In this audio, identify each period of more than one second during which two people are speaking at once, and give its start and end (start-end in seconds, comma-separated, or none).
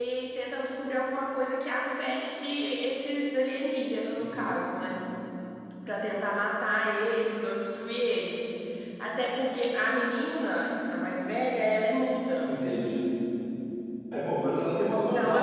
none